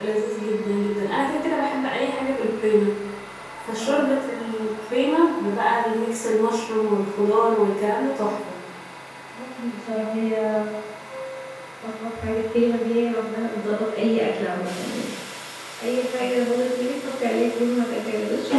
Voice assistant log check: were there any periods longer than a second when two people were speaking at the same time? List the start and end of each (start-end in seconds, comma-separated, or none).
none